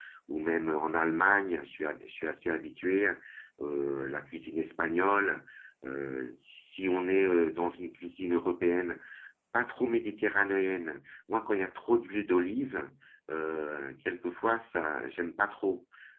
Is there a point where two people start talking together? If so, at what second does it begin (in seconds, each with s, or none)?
none